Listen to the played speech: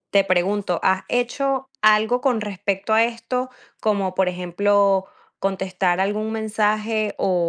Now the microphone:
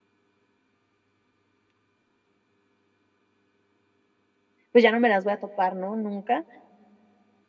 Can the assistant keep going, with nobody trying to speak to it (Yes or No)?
No